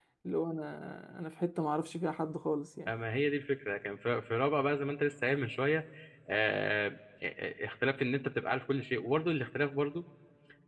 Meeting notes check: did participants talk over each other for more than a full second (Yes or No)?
No